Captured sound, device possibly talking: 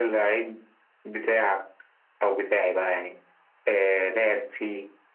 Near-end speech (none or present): none